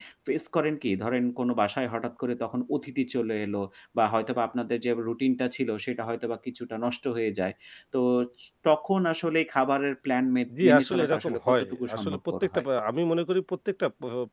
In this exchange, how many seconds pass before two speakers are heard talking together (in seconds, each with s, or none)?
10.5 s